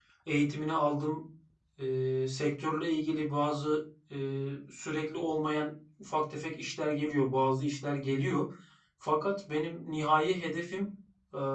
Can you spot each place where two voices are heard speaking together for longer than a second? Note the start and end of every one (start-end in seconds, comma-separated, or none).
none